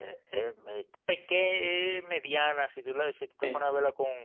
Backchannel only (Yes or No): Yes